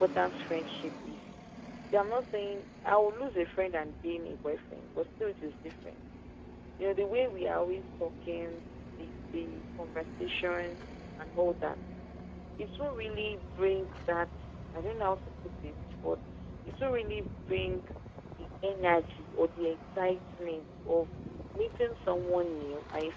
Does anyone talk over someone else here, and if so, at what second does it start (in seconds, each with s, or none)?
none